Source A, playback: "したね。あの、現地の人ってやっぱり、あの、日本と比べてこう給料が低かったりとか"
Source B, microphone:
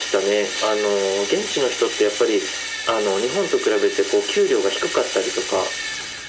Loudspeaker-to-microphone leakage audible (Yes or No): Yes